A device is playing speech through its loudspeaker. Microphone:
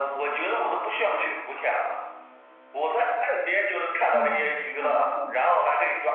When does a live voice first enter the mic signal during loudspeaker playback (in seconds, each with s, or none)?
4.1 s